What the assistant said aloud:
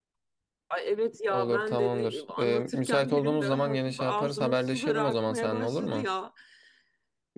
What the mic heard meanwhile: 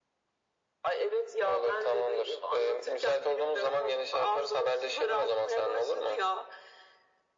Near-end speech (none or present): none